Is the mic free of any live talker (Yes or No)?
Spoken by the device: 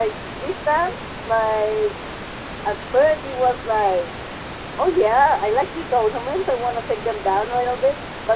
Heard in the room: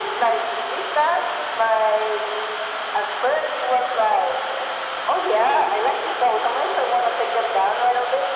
Yes